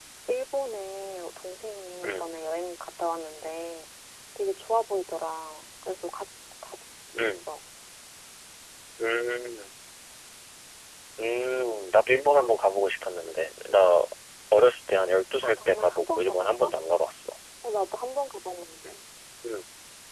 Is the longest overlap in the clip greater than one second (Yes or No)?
Yes